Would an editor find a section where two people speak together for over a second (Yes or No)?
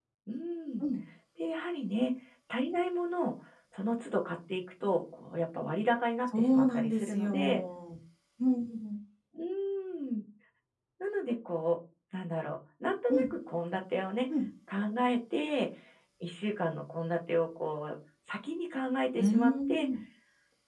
Yes